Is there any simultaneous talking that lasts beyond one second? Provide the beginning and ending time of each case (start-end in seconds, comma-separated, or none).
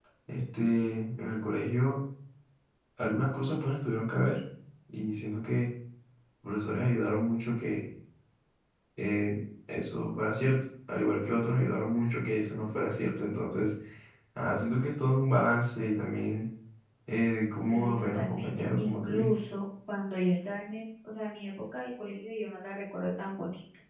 17.7-19.3